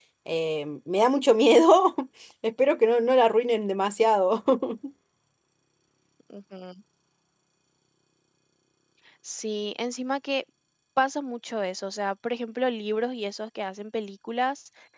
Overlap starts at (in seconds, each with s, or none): none